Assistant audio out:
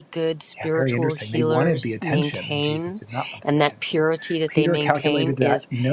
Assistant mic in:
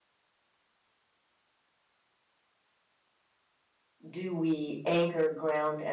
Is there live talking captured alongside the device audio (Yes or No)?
Yes